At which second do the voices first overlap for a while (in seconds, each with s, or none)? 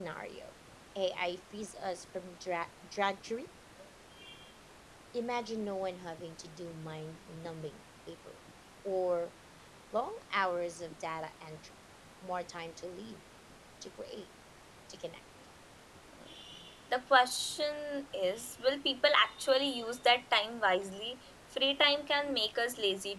none